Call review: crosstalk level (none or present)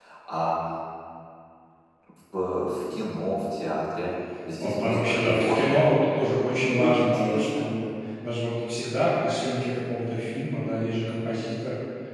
present